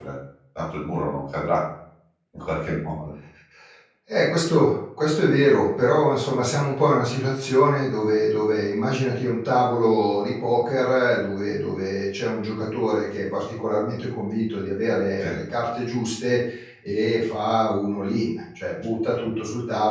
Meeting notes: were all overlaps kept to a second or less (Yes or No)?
Yes